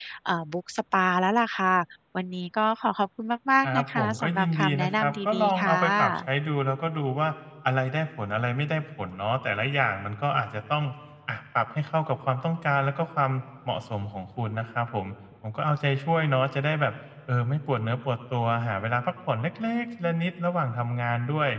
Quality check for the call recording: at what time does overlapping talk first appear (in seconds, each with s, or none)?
3.6 s